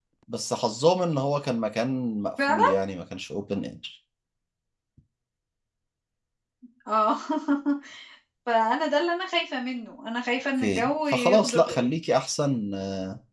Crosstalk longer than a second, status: present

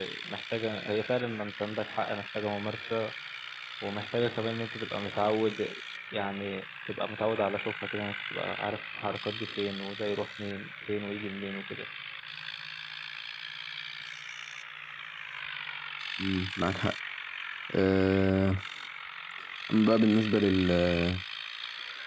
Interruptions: none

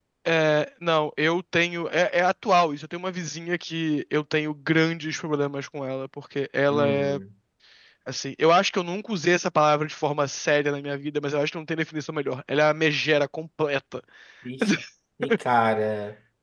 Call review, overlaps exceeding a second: none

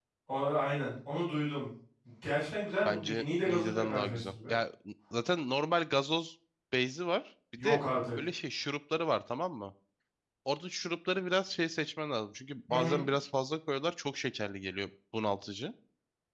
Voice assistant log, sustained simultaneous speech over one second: present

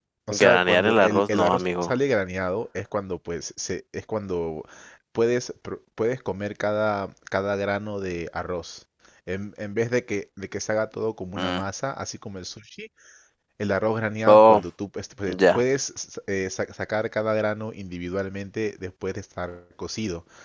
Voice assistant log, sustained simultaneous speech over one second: present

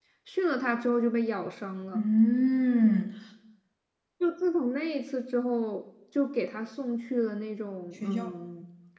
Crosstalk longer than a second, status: none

